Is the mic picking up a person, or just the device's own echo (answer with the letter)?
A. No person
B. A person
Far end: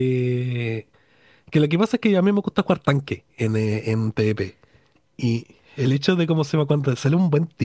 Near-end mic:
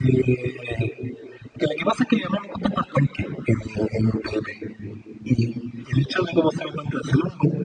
A